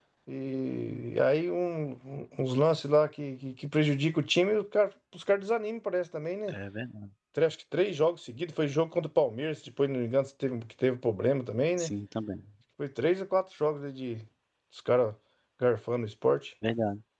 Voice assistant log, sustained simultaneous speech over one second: none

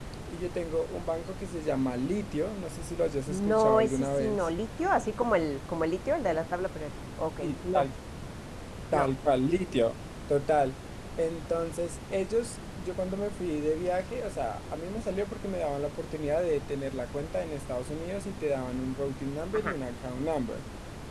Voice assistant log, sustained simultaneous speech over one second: present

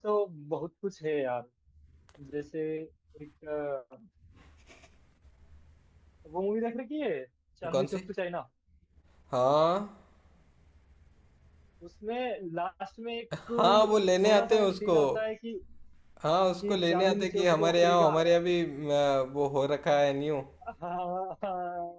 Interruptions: present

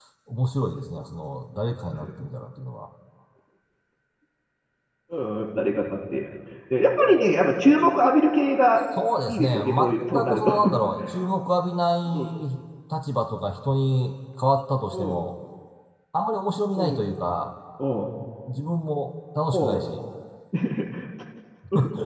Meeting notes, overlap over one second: present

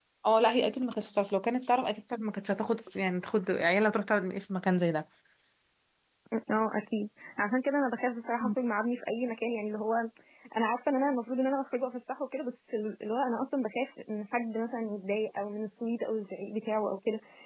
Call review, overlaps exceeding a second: none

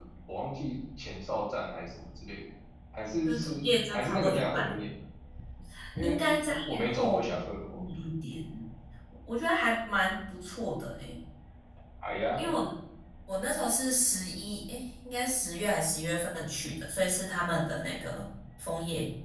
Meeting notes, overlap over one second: present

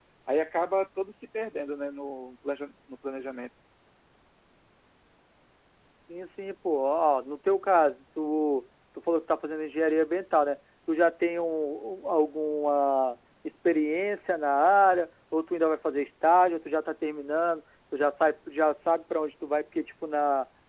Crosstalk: none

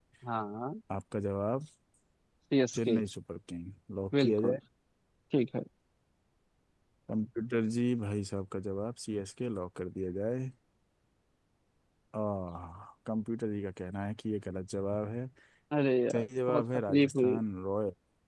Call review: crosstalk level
present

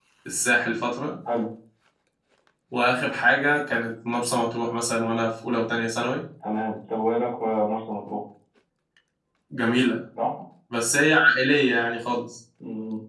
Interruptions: none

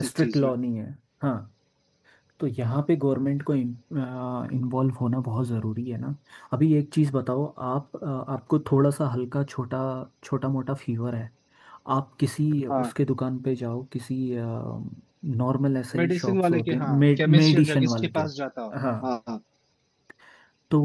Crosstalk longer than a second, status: present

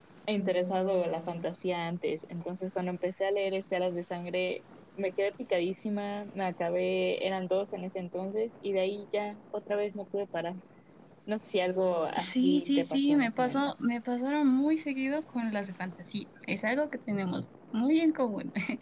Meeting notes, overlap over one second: present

